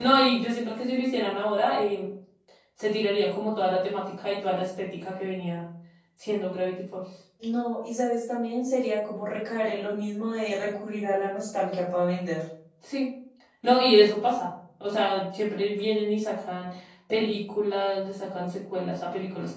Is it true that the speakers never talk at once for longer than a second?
Yes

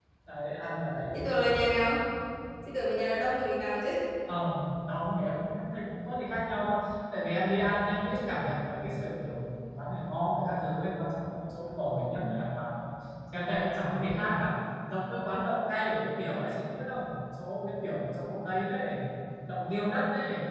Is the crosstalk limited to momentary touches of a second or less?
Yes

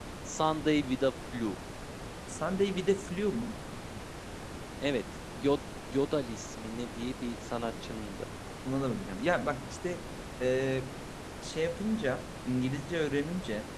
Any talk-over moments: No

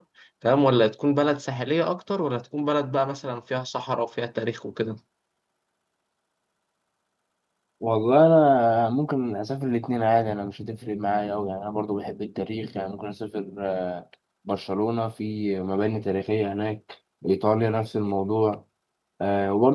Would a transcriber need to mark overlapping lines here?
No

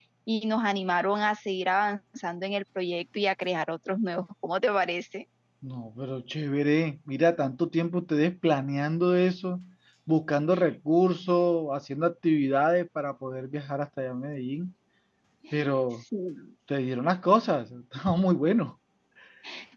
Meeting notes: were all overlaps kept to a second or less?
Yes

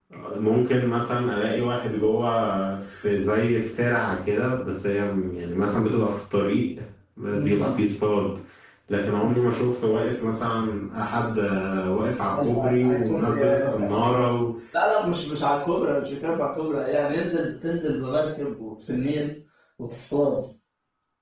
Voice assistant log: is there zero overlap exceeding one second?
No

